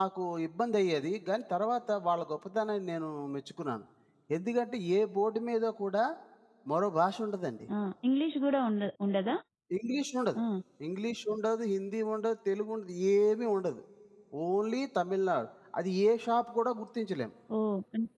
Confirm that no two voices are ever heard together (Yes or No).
Yes